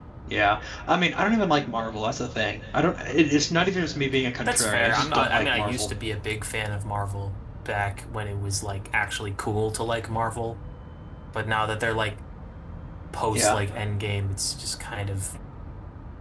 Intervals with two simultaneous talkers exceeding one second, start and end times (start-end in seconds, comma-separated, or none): 4.5-5.9